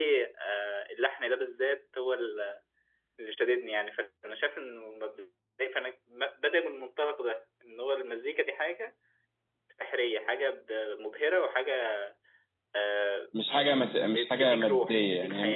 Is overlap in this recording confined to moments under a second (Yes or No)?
No